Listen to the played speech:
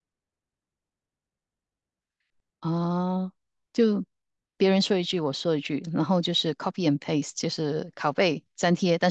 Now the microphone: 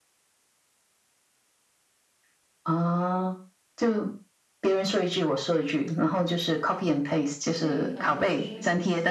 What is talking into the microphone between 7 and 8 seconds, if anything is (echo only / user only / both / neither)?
both